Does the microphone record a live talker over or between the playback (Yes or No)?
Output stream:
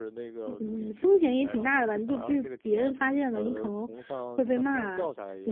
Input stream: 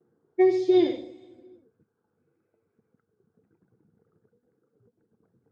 Yes